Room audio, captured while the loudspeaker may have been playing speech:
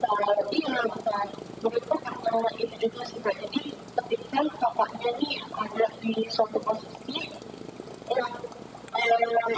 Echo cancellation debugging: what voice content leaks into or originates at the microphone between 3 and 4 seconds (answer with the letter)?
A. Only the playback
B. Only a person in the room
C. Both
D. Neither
A